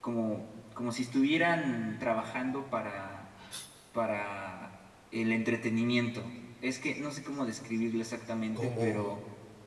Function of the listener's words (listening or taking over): listening